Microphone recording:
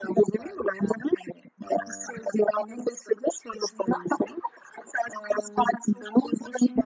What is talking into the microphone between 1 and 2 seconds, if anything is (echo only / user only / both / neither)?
echo only